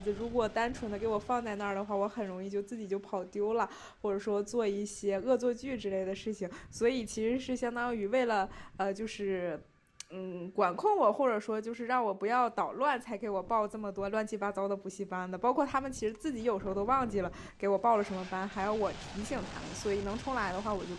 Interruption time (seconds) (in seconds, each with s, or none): none